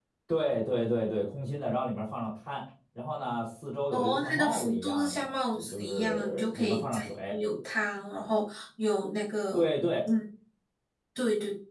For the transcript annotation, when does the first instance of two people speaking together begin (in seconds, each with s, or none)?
3.9 s